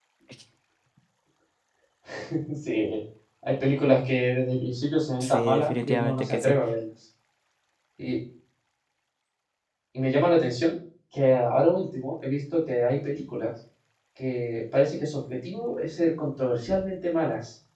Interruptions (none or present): present